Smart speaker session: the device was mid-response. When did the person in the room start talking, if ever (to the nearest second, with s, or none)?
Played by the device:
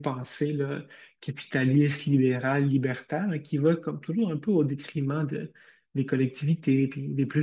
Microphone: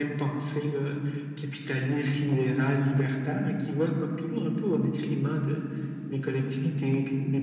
none